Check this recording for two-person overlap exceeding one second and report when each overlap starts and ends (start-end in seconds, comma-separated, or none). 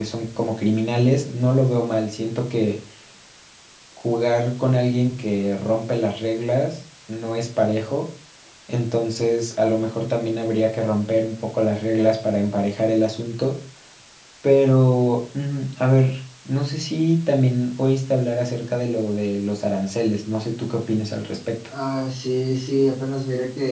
none